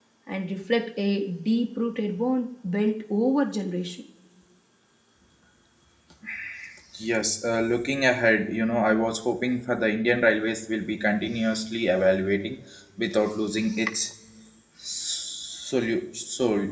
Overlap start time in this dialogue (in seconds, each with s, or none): none